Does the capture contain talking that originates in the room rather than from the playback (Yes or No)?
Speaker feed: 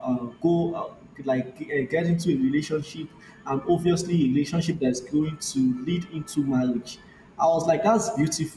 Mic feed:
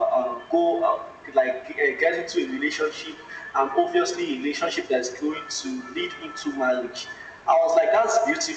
No